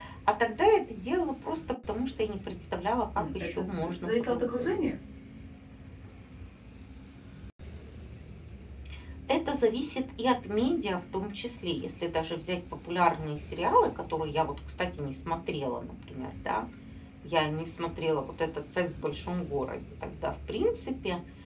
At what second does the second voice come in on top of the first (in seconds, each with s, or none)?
3.1 s